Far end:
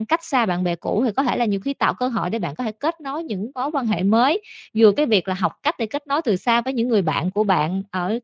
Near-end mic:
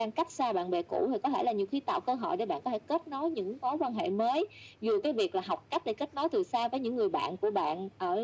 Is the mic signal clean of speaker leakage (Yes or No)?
No